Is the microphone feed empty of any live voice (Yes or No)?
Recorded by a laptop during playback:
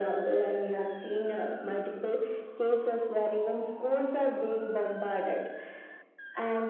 Yes